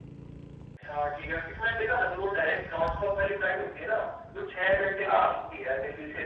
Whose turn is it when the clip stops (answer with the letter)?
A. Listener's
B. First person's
B